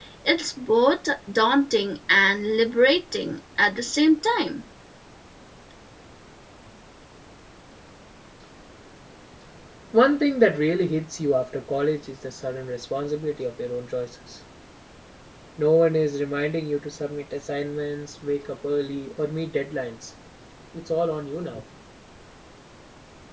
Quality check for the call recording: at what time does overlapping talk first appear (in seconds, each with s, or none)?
none